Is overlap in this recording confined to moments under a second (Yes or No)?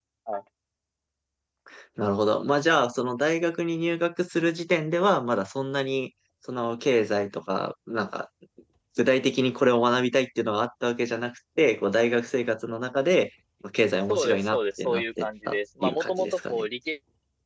No